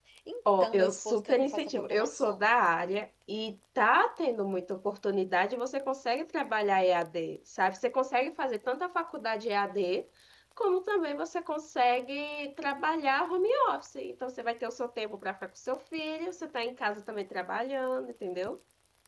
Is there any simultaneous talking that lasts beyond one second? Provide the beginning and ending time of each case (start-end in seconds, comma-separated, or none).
0.6-2.4